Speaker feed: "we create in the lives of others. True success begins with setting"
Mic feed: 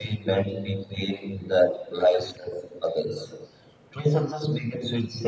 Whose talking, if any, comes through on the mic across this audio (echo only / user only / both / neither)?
echo only